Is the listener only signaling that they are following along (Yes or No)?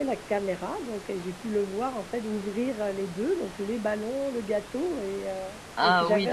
No